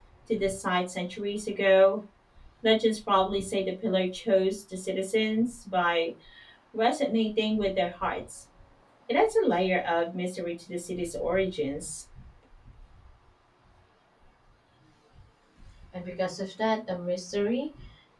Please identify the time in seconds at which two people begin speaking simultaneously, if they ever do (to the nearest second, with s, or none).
none